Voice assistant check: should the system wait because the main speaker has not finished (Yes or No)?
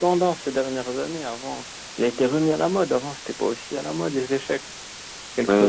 No